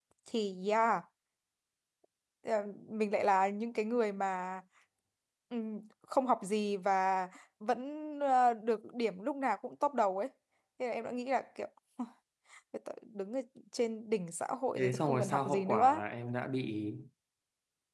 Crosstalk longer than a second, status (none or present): present